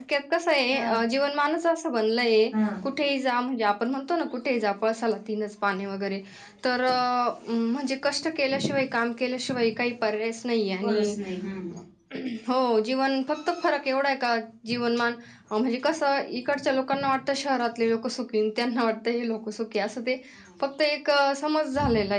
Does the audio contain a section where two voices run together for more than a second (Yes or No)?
No